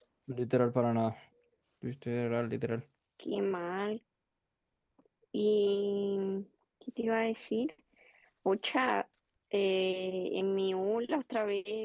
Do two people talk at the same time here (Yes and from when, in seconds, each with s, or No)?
No